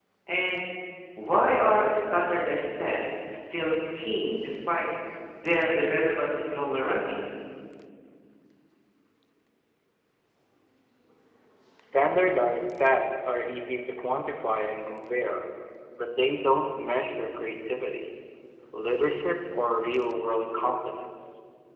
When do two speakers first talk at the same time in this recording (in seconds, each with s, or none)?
none